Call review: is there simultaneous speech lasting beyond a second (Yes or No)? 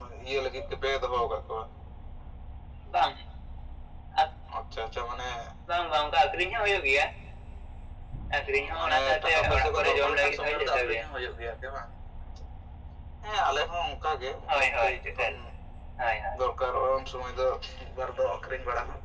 Yes